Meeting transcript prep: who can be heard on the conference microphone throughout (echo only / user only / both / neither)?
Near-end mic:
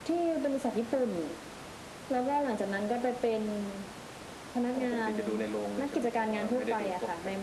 echo only